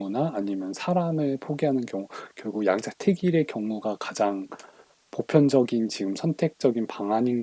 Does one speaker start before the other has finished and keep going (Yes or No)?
No